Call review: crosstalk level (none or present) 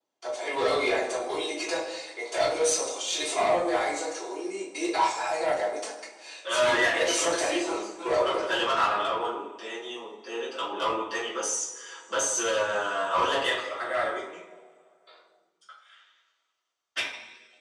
present